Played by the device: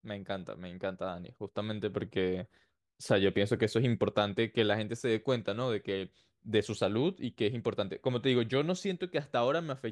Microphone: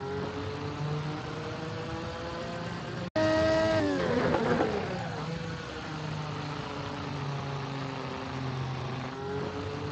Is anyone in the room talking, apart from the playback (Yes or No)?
No